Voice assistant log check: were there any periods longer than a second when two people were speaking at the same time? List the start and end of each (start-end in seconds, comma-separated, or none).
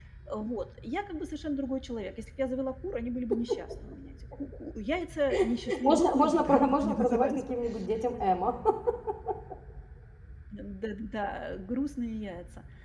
5.8-7.4